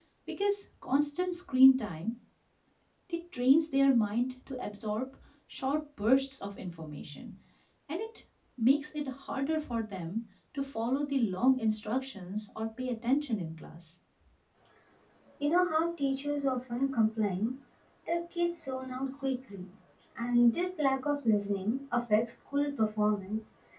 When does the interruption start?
none

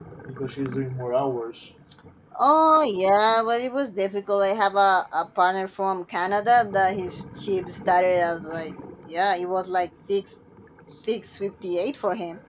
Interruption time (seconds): none

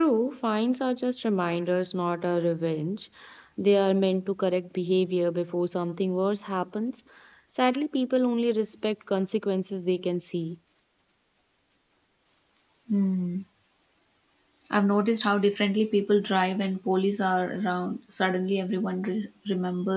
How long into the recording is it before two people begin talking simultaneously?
none

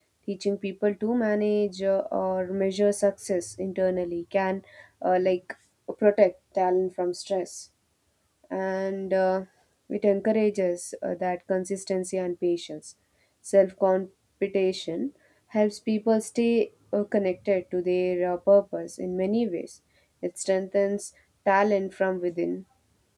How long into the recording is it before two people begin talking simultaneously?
none

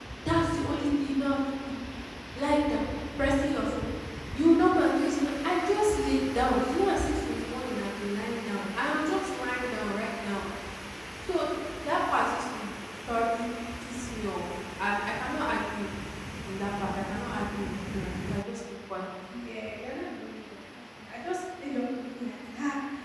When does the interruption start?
none

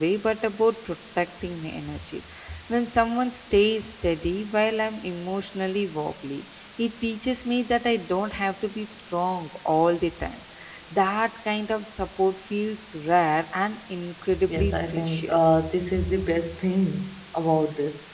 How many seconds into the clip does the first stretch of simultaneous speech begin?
14.3 s

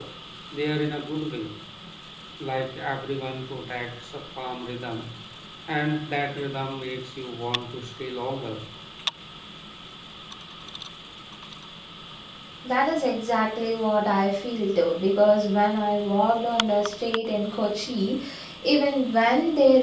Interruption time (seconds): none

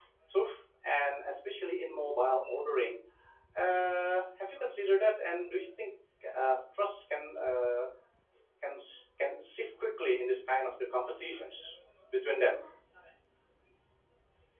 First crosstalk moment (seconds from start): none

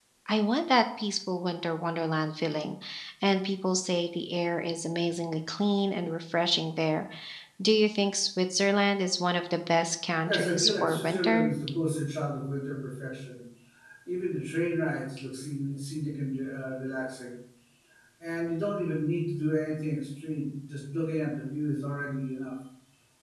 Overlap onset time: 10.2 s

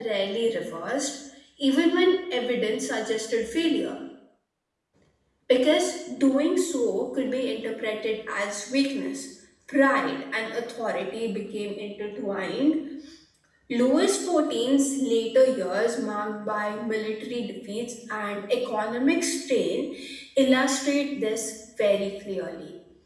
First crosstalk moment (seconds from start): none

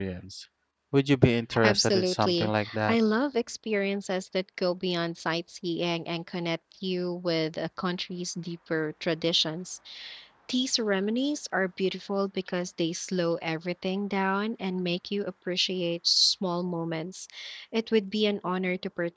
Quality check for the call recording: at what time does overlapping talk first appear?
1.6 s

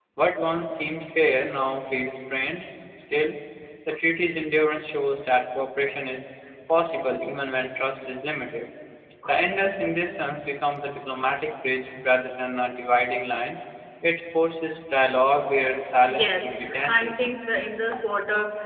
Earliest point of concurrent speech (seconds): 16.1 s

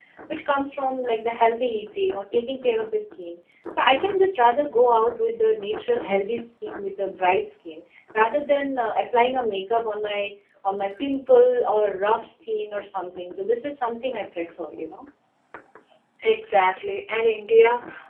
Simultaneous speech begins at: none

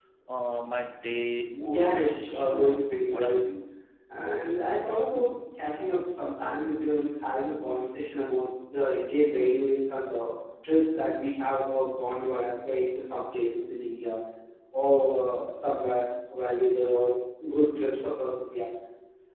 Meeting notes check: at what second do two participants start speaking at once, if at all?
1.5 s

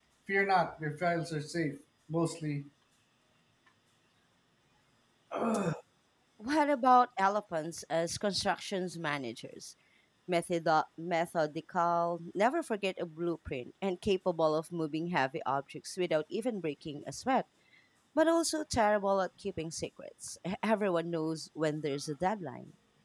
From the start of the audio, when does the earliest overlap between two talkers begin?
none

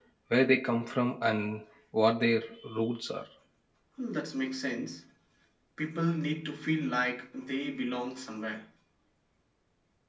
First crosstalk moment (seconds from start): none

